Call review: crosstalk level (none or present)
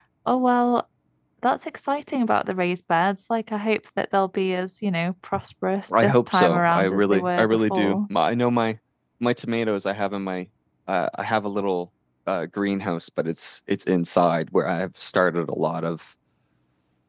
present